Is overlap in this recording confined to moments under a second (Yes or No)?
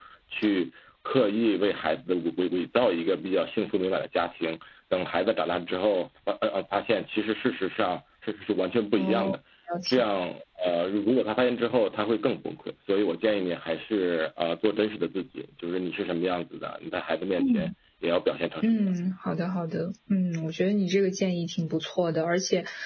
Yes